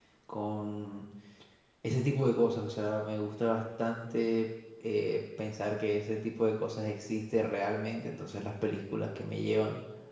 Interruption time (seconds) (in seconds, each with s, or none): none